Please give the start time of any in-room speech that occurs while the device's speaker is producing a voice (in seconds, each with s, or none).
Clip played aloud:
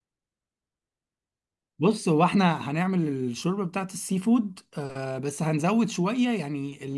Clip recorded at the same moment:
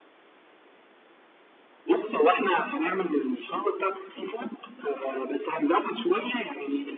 none